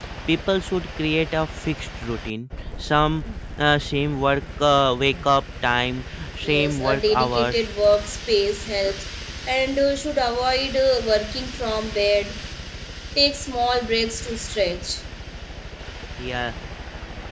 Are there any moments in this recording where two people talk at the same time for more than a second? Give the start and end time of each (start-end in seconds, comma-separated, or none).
6.4-7.7